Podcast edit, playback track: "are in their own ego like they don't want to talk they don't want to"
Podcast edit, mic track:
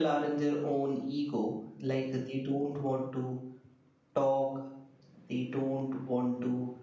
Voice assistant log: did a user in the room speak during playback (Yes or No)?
No